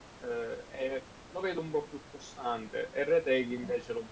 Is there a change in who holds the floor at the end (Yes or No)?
No